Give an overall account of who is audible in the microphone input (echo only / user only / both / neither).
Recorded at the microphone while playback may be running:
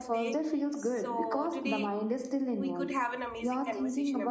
both